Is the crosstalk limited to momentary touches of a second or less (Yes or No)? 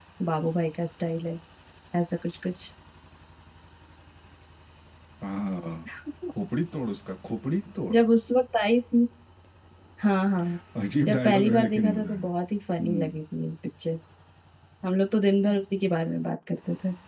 No